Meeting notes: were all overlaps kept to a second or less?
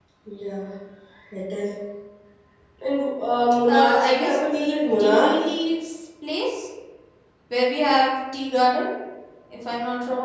No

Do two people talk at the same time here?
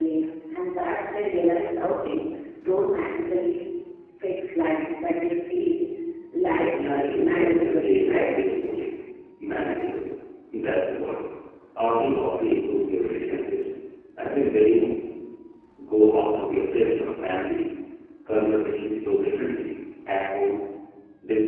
Yes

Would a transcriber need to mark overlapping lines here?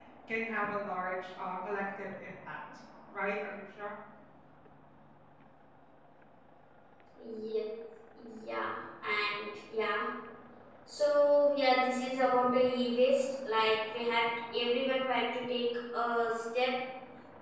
No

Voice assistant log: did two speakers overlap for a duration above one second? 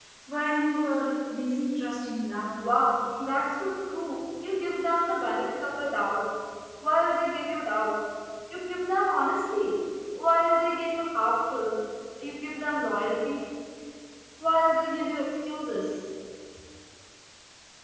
No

